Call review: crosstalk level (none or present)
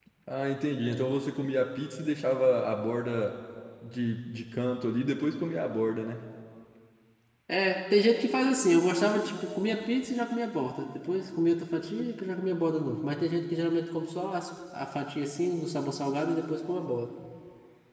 none